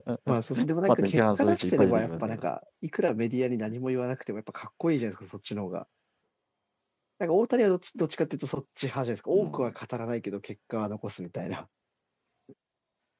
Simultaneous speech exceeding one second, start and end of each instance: 0.9-2.4

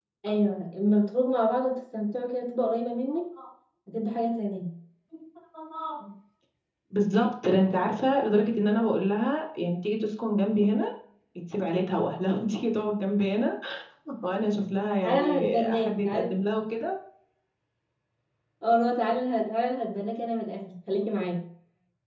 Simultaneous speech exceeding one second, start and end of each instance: 15.0-16.3

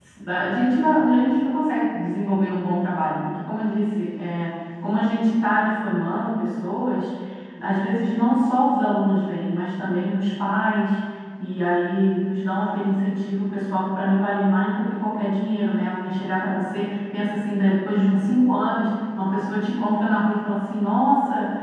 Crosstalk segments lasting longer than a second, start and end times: none

